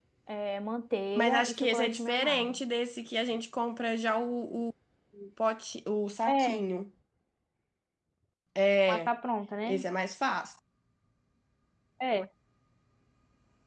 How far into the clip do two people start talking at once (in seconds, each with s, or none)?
1.2 s